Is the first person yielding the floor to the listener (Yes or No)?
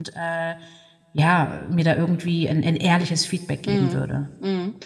Yes